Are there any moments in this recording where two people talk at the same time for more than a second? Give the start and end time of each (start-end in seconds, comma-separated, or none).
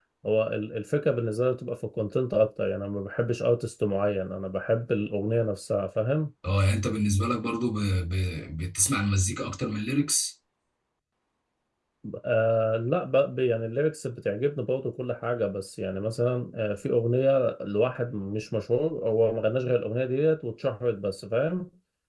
none